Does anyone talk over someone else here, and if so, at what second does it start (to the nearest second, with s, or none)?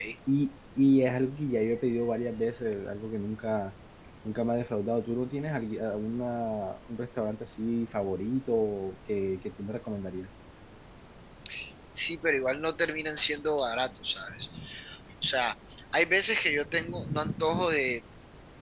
none